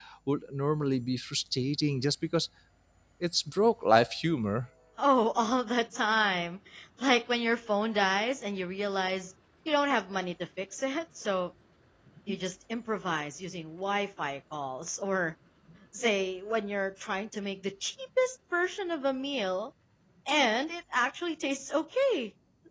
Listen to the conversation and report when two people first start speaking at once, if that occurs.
none

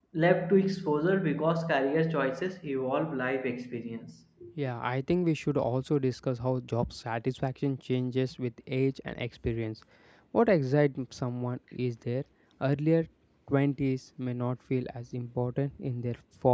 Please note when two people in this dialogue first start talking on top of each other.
none

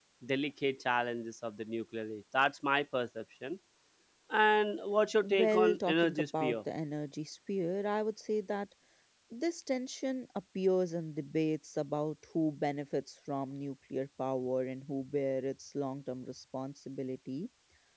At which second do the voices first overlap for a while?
5.2 s

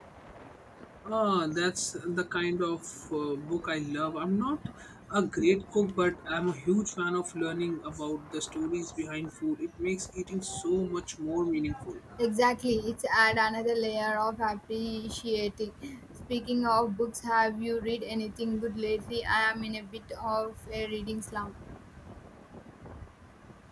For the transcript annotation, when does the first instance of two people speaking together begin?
none

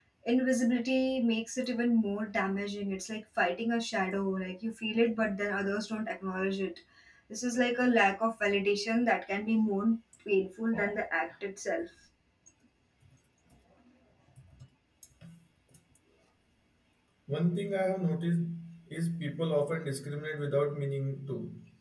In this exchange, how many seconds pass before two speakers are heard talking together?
none

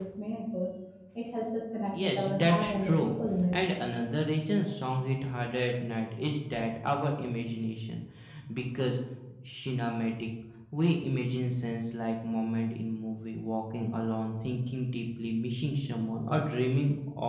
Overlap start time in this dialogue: 1.9 s

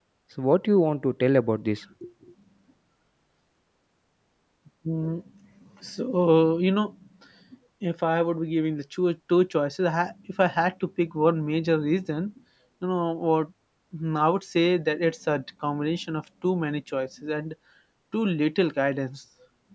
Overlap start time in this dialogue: none

